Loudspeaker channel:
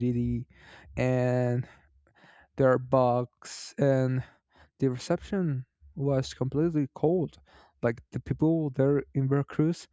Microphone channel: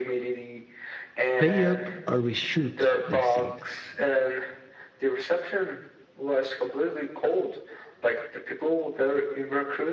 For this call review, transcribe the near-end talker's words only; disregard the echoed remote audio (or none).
Pay up or we shoot, they said.